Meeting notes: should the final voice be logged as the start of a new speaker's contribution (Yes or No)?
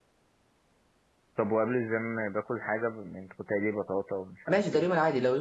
Yes